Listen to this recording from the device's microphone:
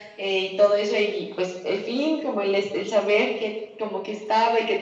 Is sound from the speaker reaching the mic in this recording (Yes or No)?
Yes